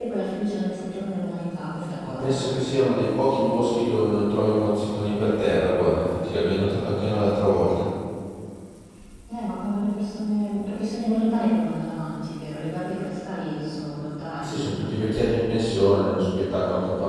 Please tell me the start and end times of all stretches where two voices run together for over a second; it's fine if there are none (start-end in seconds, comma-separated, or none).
none